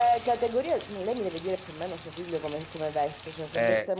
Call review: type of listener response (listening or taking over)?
listening